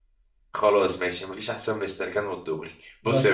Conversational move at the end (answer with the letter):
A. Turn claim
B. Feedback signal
B